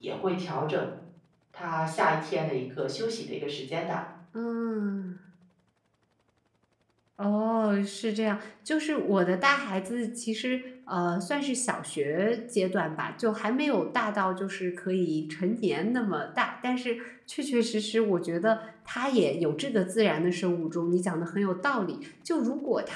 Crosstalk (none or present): none